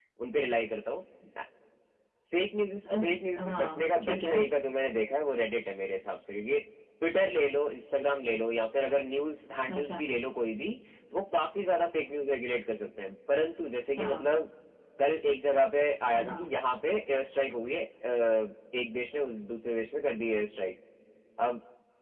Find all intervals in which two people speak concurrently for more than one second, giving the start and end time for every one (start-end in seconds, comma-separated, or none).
2.9-4.4